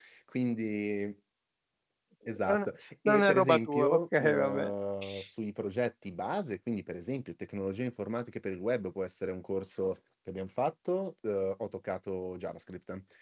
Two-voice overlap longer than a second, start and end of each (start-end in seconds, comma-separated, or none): 3.0-4.7